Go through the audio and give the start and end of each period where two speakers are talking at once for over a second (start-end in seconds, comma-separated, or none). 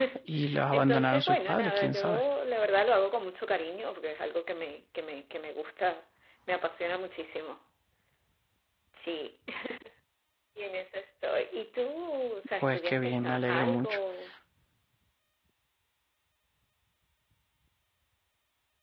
0.7-2.2, 12.6-14.0